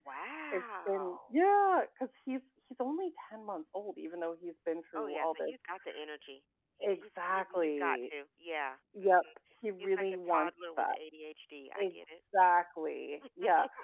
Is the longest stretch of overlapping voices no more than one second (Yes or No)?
No